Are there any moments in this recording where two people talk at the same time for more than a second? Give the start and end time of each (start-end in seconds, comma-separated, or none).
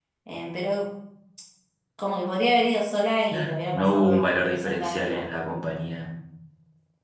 3.3-5.3